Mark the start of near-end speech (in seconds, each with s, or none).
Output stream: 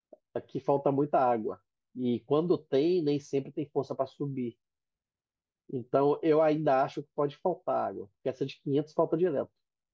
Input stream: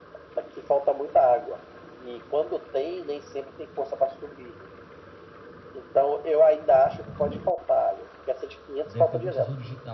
8.8 s